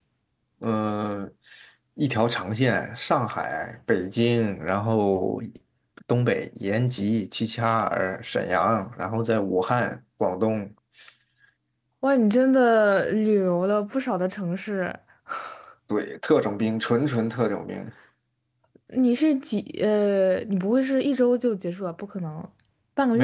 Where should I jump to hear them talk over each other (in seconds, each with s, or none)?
none